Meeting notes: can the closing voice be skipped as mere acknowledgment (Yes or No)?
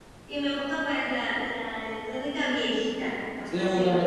No